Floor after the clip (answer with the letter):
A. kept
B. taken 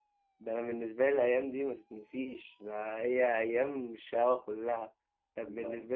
A